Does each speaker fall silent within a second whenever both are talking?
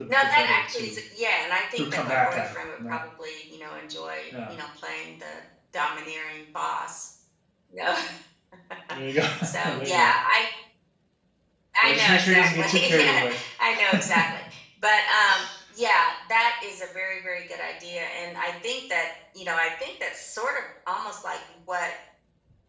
No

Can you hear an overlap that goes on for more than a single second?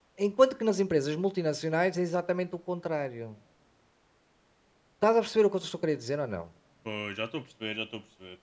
No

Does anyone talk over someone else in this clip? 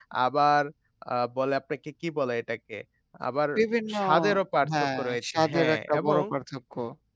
Yes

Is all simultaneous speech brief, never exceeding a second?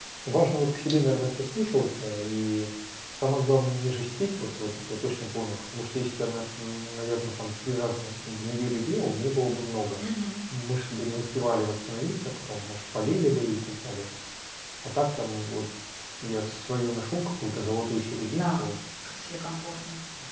Yes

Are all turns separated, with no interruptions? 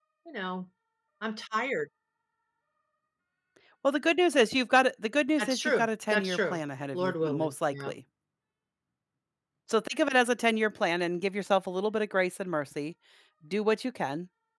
No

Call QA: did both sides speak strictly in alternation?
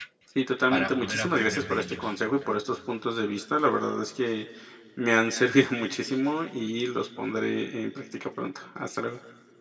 No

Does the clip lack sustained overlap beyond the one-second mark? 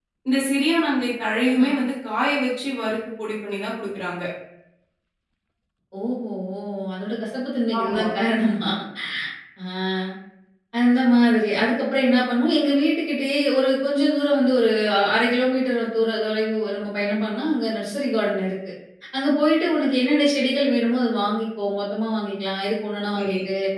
Yes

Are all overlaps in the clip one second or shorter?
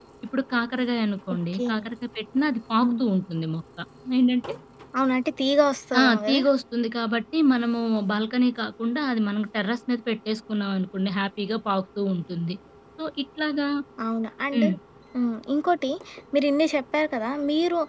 Yes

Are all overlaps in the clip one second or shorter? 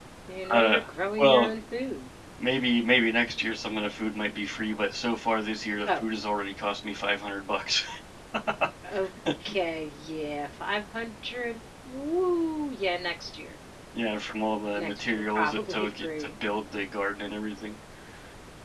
No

